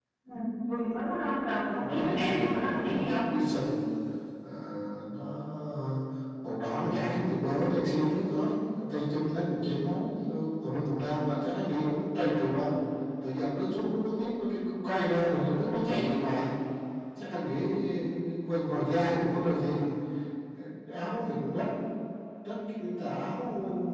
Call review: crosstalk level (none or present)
present